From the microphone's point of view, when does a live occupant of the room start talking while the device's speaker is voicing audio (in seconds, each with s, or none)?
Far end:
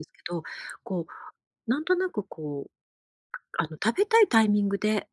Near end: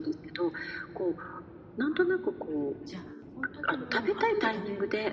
1.8 s